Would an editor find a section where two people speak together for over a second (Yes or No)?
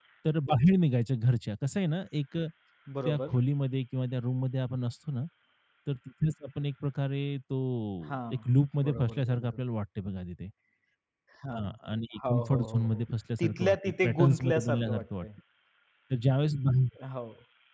Yes